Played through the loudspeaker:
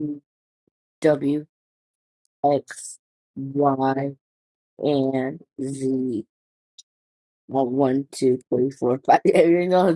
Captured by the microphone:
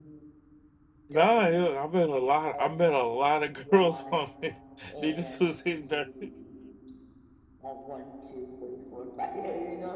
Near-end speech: present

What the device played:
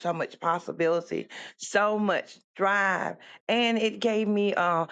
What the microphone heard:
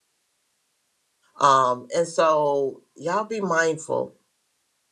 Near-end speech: present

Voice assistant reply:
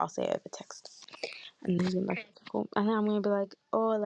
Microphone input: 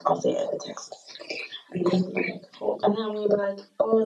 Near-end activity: none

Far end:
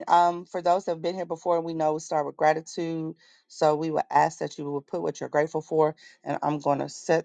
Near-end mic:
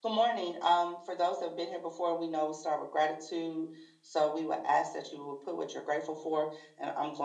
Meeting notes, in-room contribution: none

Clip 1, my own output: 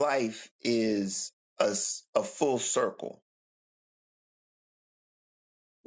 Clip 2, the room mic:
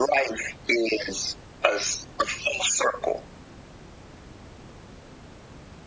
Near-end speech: none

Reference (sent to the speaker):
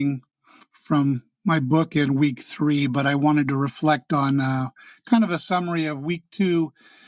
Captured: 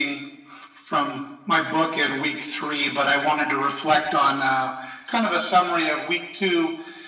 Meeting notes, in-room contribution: none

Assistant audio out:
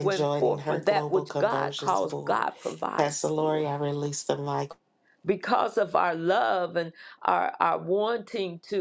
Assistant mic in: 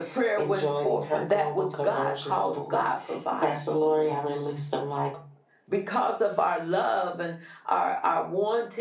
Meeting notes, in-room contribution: none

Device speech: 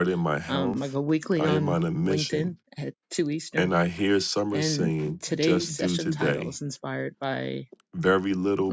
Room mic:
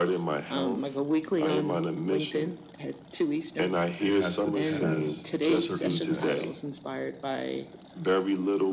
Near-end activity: present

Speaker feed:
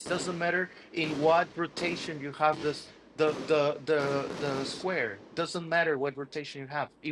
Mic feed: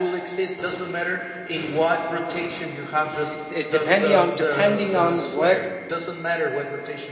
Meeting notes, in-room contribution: present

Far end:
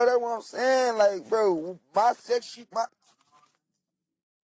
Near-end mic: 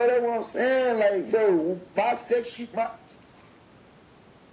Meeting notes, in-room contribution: none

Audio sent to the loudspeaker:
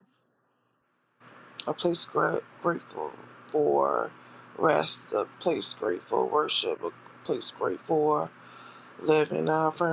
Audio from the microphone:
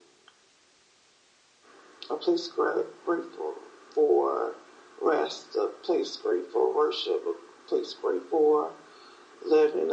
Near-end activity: none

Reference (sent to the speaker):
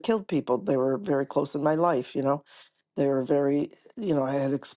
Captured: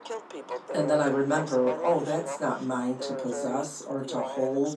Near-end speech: present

